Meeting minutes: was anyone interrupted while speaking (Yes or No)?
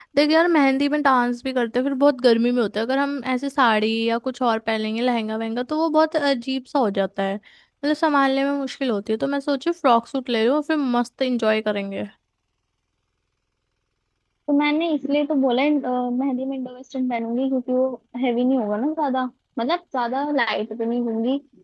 No